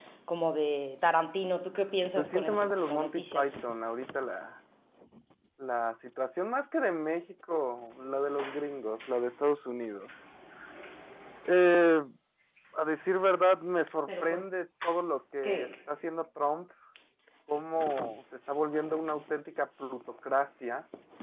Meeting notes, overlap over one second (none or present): present